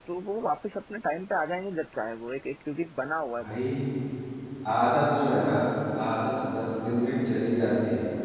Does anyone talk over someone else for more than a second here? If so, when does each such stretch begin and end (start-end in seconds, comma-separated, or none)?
none